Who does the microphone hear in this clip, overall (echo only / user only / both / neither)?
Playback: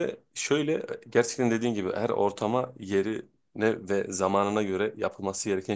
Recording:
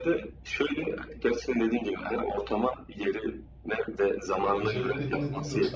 both